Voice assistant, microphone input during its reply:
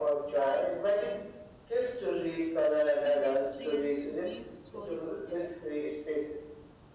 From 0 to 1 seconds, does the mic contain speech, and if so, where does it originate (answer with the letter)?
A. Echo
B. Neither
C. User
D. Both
D